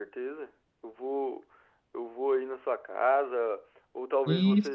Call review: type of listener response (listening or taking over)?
listening